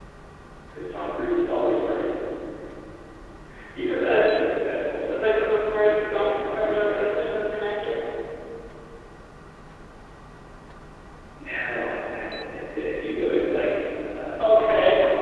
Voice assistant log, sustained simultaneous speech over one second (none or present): present